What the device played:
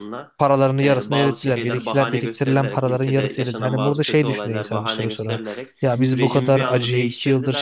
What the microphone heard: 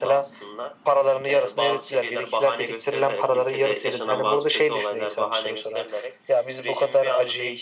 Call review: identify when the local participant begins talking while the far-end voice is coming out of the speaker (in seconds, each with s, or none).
none